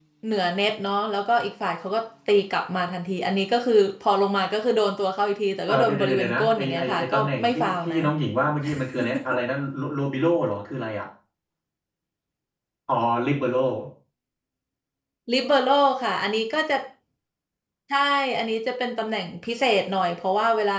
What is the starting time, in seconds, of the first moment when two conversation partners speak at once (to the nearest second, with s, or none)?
6 s